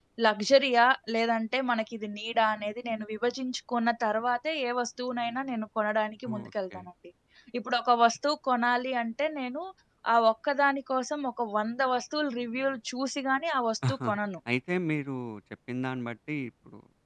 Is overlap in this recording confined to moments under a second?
Yes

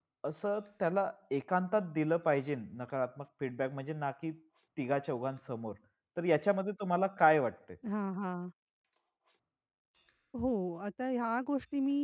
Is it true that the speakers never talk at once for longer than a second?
Yes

